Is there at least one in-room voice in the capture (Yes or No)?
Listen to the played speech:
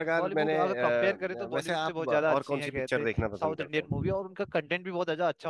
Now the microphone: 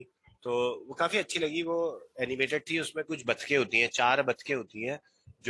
Yes